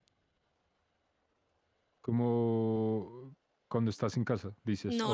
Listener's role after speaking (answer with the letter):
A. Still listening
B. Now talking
B